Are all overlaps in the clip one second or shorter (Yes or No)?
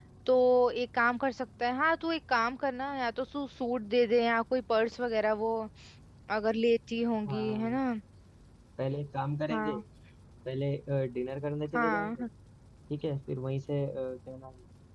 Yes